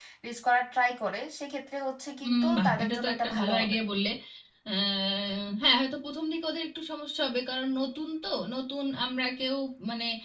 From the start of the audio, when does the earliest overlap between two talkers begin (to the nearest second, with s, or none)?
2 s